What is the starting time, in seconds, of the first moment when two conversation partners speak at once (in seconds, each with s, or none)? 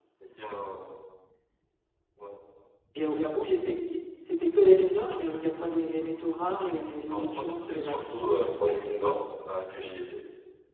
7.1 s